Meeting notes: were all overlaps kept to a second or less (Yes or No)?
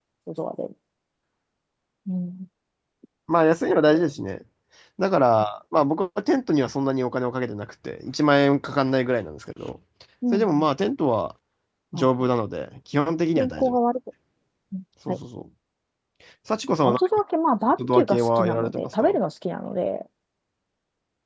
No